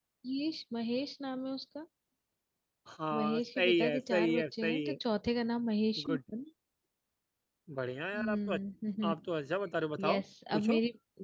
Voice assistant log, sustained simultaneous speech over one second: present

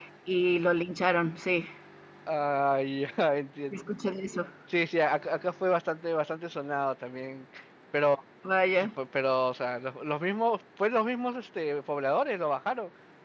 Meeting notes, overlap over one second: none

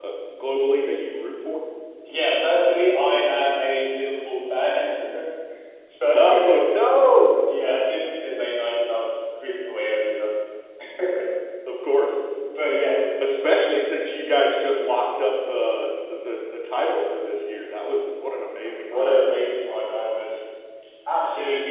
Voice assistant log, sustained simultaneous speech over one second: none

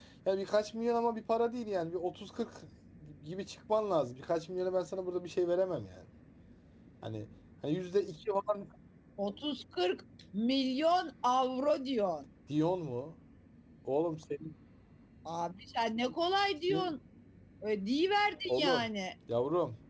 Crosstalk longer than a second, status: none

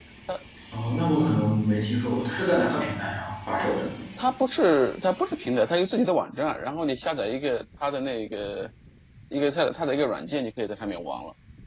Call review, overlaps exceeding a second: none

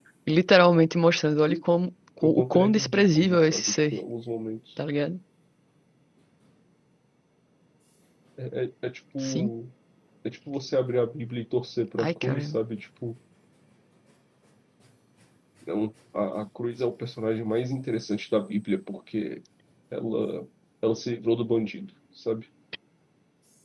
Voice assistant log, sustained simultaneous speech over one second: present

